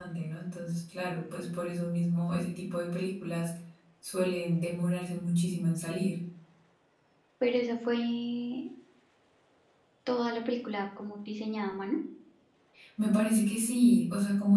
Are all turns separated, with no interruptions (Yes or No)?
Yes